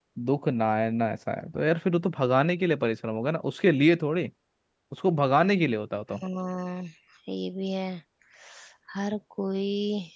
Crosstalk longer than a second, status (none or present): none